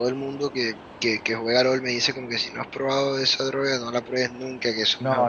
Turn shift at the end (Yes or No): Yes